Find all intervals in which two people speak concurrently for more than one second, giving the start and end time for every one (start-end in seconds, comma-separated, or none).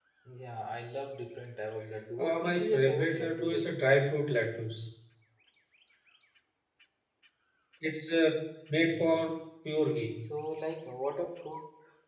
2.2-3.8